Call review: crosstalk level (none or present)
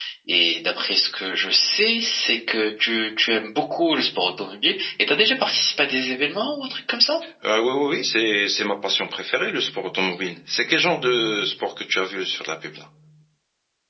none